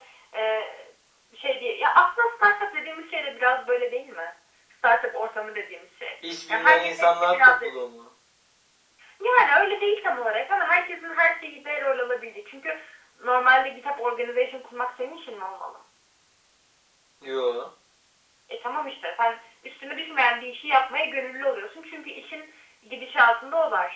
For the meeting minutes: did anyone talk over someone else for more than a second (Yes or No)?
Yes